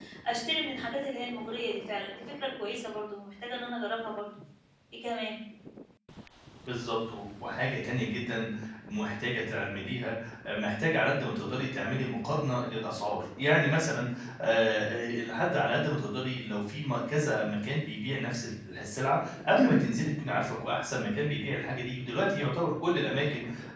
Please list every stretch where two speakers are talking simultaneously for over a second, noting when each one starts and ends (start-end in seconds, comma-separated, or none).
none